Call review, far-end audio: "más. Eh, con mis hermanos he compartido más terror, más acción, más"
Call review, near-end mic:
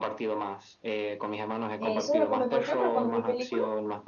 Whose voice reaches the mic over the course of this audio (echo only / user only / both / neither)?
both